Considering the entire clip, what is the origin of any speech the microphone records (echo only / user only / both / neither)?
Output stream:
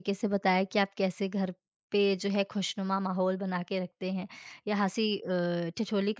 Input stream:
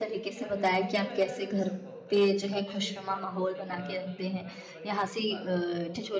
both